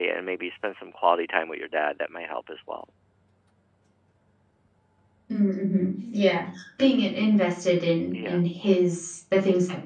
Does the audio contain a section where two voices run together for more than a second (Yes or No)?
No